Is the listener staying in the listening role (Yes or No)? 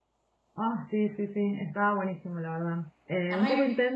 Yes